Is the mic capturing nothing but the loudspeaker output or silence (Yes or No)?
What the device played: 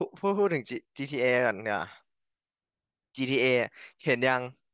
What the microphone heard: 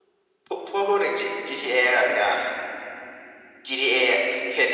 Yes